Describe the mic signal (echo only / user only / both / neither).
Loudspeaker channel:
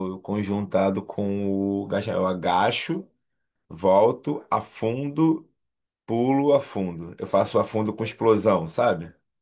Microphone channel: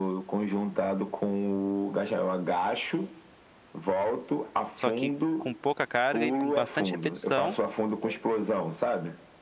both